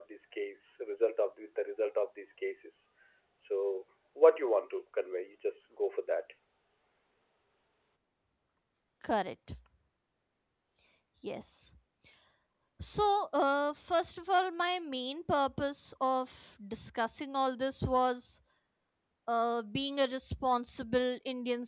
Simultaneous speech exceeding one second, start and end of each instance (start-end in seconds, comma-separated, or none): none